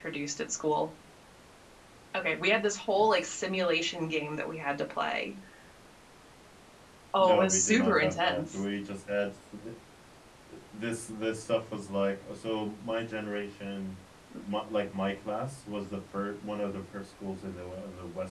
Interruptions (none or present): present